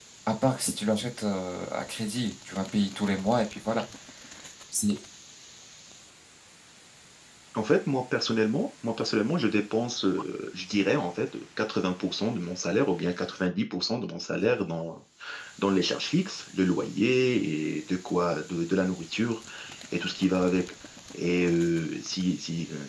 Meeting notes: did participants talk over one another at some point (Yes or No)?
No